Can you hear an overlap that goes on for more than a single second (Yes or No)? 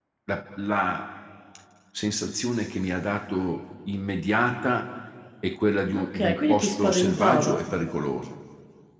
Yes